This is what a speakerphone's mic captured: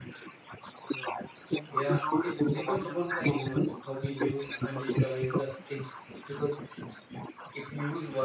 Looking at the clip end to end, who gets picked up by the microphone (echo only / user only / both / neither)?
both